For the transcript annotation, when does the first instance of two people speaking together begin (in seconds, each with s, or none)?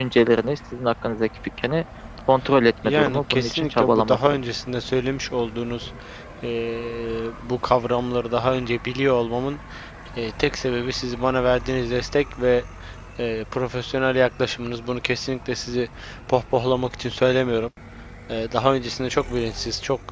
2.8 s